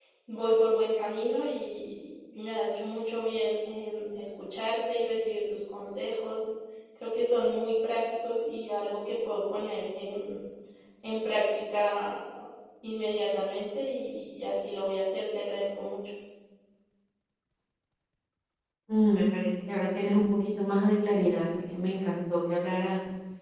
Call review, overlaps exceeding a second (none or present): none